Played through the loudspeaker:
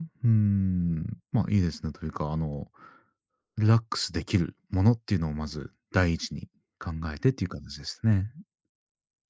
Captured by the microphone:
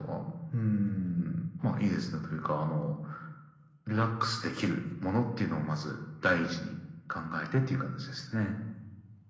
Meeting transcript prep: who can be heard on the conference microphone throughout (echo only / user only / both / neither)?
echo only